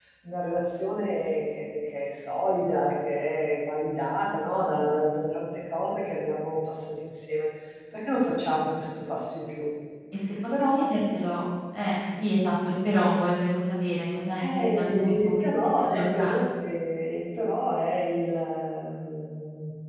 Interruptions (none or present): present